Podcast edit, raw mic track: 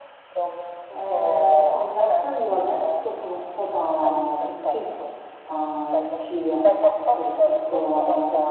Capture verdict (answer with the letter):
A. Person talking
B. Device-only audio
A